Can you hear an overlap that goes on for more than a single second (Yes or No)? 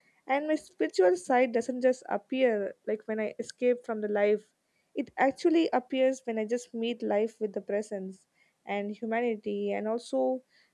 No